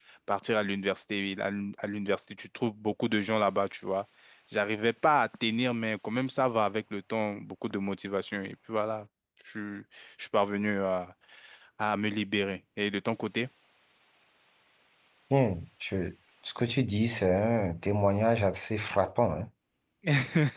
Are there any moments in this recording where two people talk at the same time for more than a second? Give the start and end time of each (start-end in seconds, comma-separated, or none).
none